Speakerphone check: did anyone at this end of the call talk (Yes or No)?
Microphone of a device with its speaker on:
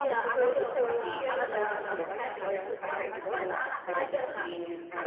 Yes